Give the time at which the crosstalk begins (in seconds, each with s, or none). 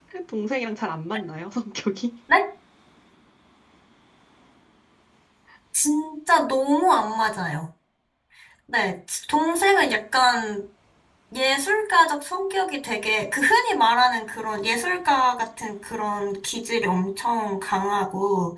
none